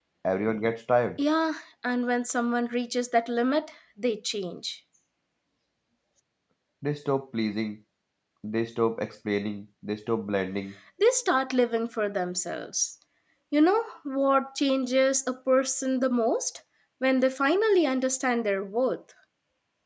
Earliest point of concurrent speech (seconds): none

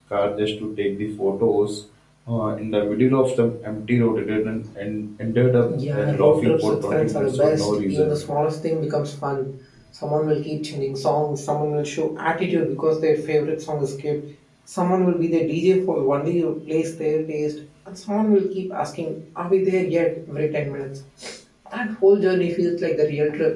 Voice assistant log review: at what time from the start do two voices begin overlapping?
5.7 s

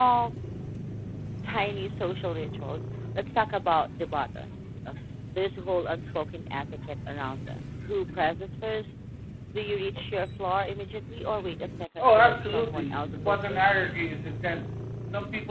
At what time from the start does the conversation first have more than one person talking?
12.0 s

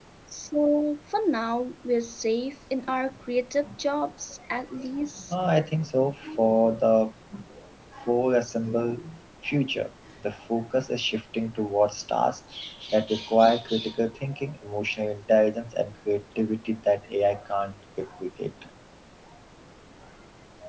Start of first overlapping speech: none

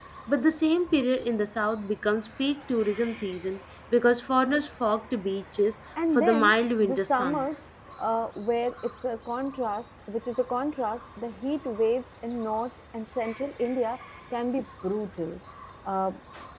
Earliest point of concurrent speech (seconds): 6.0 s

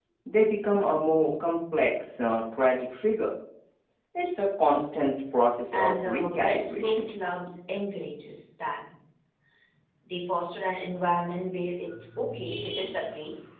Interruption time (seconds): 5.7 s

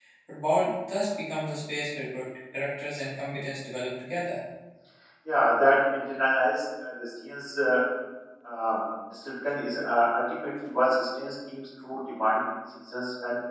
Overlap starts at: none

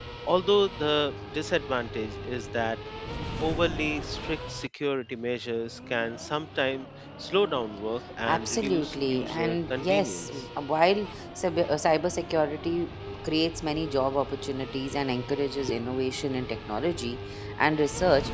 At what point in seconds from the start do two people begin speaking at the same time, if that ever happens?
8.3 s

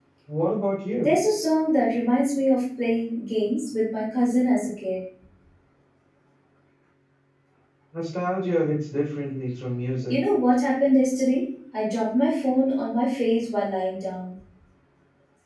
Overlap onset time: none

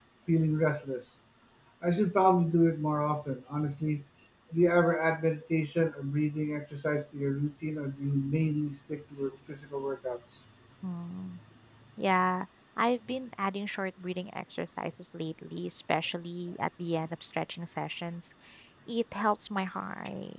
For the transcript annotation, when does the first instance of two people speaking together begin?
none

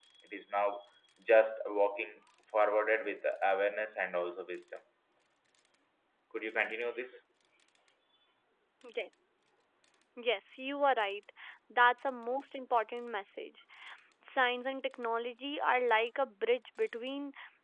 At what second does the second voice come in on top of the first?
none

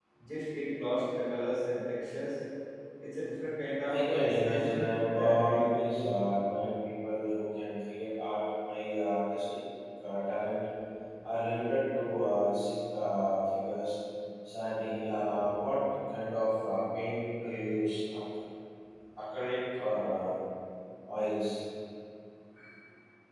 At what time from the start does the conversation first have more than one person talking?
3.9 s

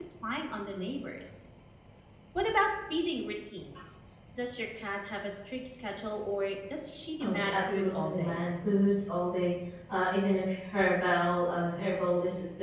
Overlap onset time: 7.2 s

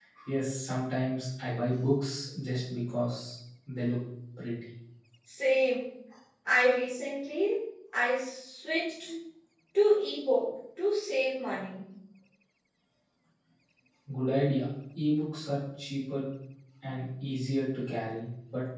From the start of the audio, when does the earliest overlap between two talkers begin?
none

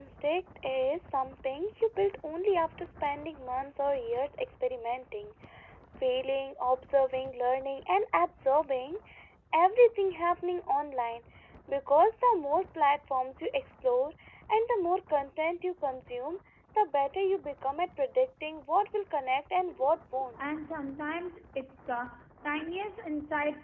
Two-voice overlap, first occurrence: none

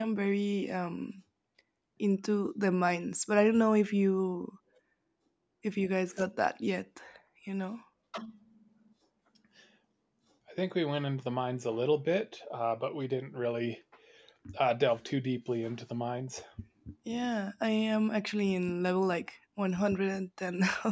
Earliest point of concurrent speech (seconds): none

